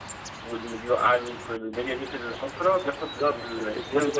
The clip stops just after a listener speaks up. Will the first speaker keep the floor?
No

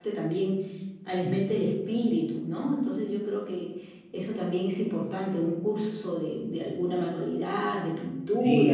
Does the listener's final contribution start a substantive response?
Yes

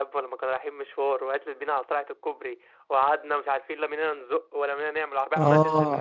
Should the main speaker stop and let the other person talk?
Yes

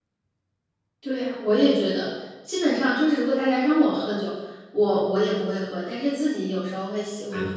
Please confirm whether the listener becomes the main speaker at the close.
Yes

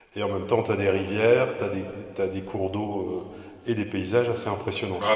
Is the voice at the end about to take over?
Yes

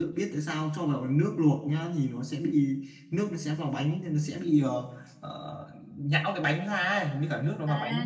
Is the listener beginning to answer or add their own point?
Yes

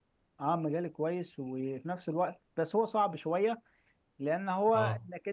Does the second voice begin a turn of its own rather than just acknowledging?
No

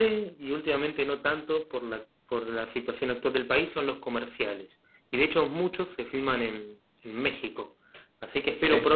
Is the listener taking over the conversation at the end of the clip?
No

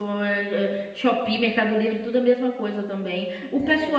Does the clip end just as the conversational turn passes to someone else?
No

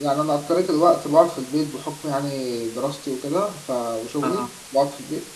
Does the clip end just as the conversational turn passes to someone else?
No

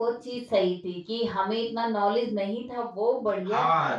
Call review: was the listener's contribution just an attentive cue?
No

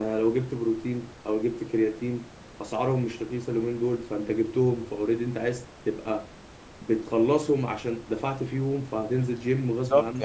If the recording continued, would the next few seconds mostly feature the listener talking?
Yes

